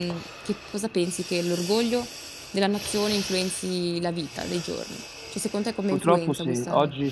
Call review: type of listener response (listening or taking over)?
taking over